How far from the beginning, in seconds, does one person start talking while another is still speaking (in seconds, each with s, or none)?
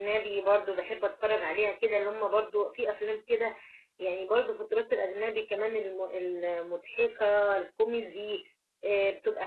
none